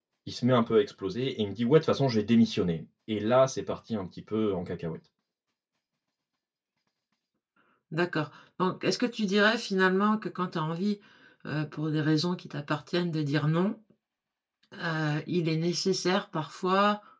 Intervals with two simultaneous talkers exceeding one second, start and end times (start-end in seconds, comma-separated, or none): none